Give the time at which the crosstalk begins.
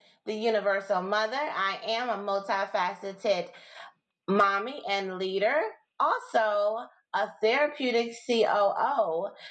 none

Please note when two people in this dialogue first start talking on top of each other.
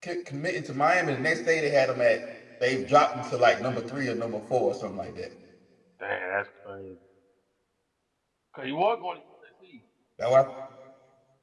none

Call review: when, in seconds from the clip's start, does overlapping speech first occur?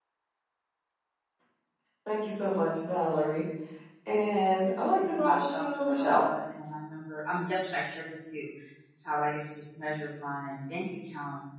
5.0 s

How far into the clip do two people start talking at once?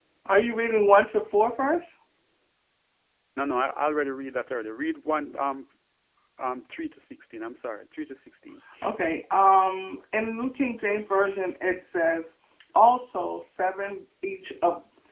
none

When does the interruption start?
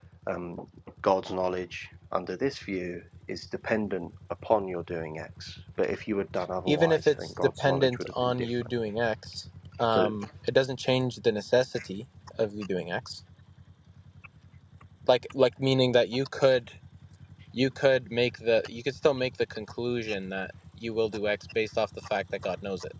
6.7 s

